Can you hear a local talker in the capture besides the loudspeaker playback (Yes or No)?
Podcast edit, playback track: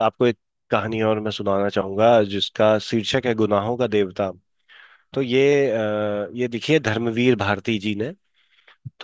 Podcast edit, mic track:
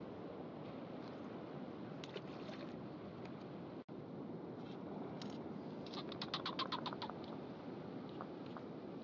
No